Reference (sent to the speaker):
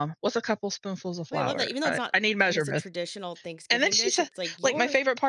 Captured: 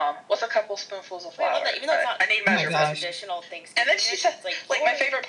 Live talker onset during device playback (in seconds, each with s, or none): 2.4 s